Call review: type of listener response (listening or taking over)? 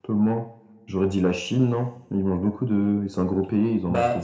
taking over